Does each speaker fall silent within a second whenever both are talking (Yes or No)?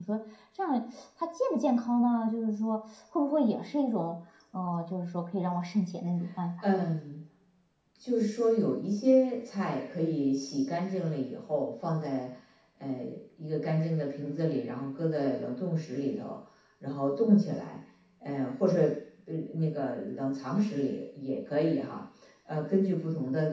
Yes